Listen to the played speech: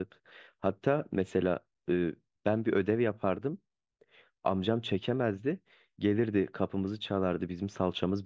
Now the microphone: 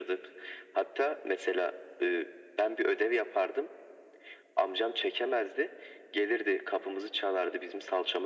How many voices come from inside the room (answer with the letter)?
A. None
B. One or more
A